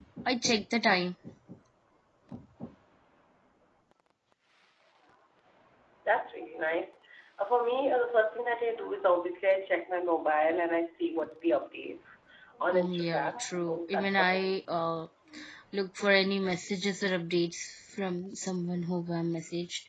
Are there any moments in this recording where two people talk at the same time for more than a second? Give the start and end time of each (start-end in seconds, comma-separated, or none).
12.7-14.5